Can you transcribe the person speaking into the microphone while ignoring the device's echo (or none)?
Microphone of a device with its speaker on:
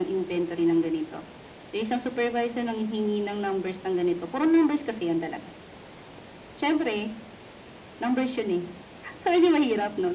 none